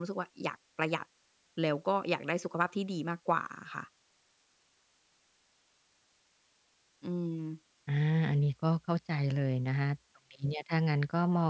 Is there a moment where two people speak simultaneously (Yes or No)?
No